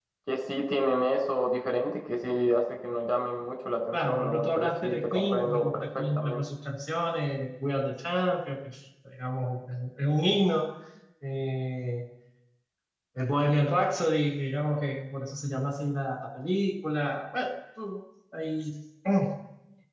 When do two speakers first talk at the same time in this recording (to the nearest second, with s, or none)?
4 s